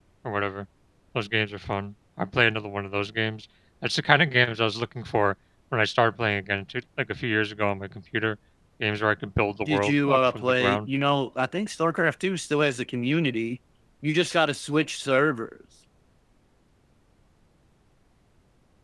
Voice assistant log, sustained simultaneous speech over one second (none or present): present